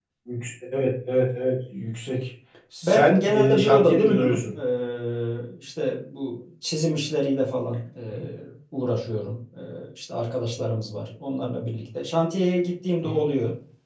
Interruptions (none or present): present